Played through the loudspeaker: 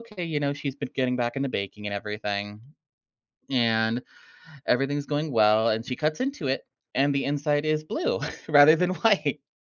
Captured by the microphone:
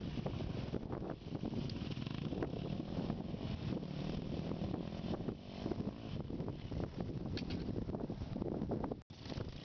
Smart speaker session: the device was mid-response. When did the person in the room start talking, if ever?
none

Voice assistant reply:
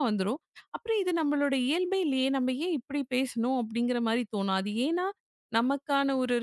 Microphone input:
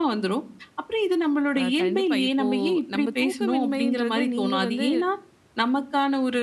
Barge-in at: 1.6 s

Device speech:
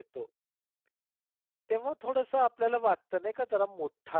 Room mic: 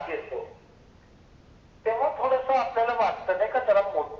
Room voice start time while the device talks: none

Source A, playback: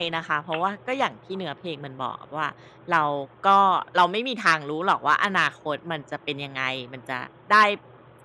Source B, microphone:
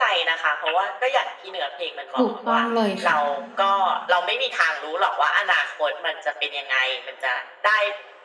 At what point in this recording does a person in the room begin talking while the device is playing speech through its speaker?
2.1 s

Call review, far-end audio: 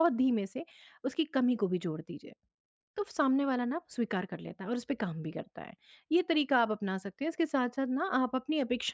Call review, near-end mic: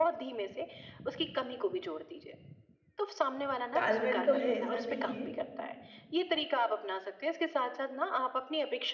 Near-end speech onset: 3.7 s

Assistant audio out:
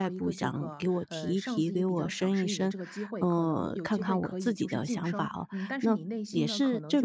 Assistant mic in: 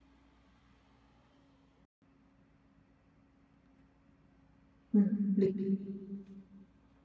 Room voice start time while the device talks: 4.9 s

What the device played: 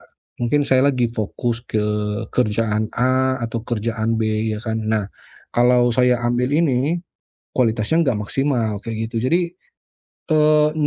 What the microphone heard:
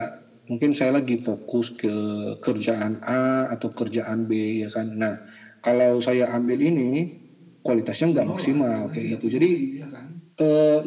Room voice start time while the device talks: 8.1 s

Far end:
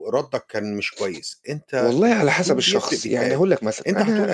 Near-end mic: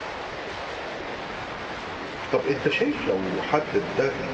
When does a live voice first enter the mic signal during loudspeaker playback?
2.3 s

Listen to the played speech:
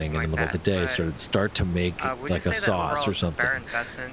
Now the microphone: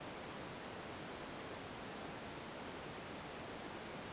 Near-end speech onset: none

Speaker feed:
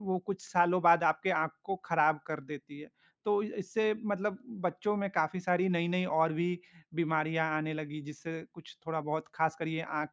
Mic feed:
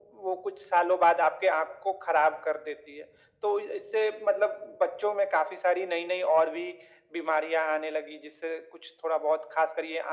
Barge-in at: none

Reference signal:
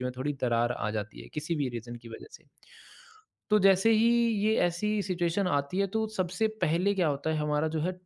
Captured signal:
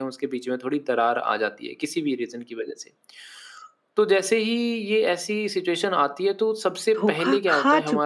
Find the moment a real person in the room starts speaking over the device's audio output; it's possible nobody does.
7.0 s

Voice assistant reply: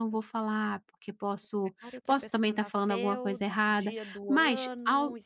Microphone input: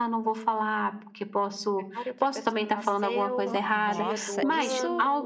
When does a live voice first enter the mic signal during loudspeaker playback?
3.5 s

